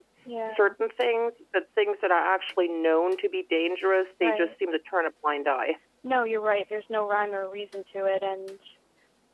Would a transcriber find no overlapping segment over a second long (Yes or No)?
Yes